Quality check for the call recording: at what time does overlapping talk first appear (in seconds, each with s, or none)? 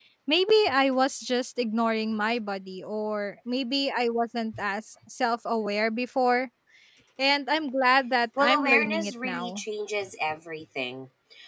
8.4 s